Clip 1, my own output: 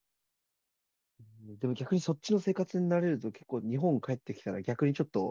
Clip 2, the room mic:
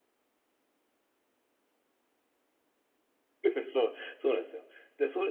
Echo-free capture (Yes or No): Yes